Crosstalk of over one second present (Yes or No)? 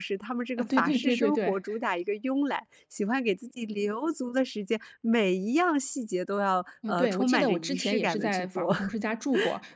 Yes